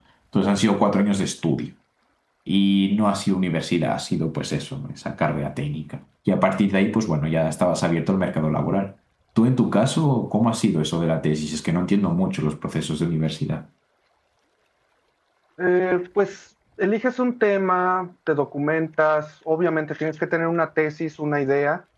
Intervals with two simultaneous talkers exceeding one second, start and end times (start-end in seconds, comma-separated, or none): none